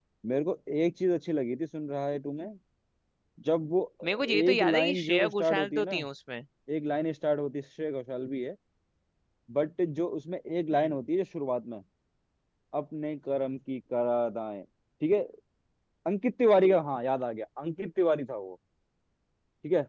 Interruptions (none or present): present